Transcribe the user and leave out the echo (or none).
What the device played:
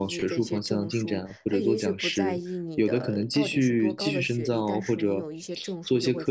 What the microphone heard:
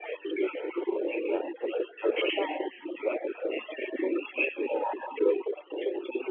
none